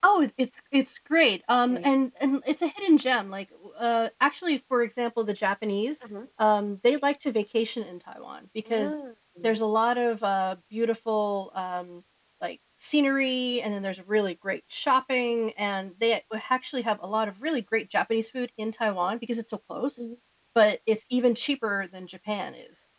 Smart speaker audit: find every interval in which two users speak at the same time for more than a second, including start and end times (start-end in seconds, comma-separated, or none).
none